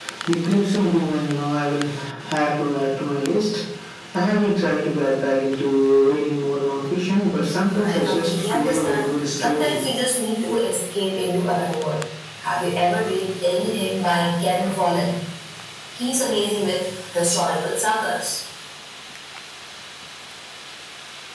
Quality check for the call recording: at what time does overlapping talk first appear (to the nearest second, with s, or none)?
8 s